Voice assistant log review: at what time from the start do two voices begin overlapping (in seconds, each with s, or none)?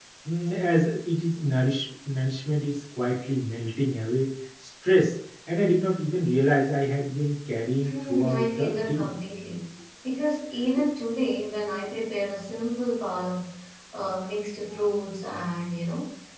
7.8 s